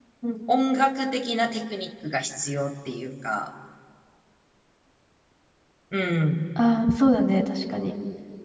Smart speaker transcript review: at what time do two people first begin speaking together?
none

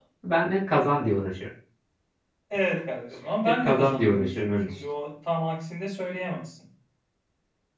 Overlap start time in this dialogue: 3 s

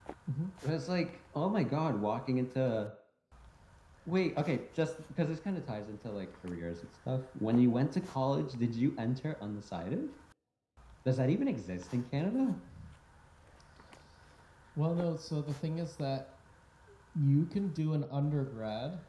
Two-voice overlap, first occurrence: none

